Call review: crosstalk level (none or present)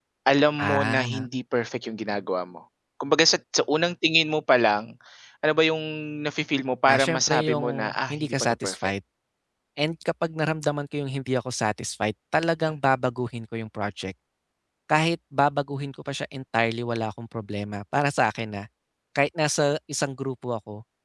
present